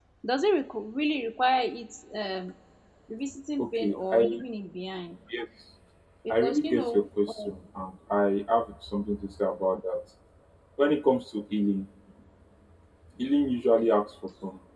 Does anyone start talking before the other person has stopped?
Yes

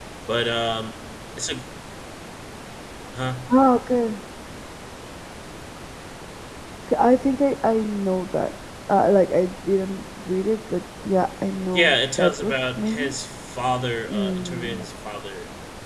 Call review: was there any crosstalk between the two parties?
Yes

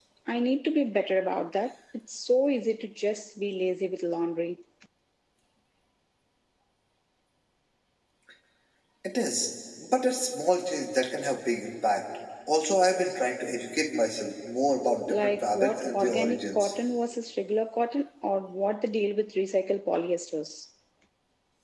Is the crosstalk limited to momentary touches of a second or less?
No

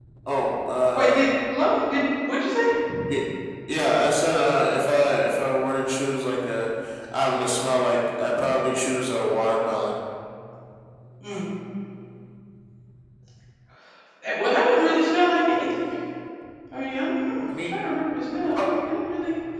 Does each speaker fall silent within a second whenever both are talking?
Yes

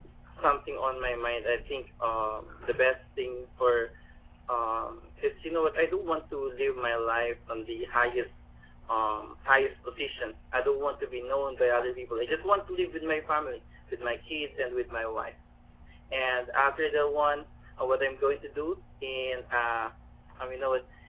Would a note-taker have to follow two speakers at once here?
No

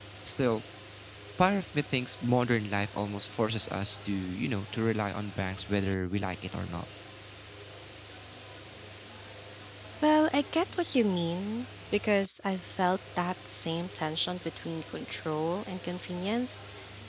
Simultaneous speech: No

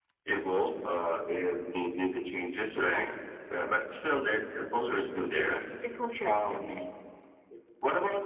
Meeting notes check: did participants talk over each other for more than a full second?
No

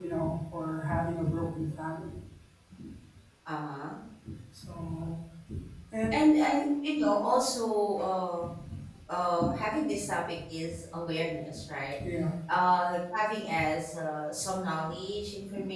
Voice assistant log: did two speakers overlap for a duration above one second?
No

